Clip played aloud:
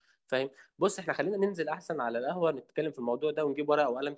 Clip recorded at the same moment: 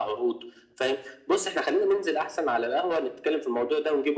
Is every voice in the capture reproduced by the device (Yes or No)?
Yes